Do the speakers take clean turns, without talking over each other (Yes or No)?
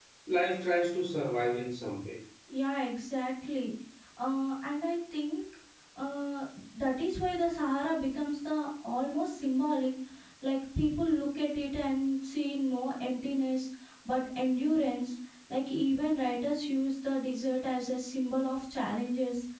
Yes